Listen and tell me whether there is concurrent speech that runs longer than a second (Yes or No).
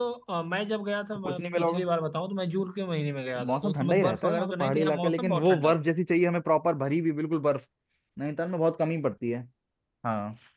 Yes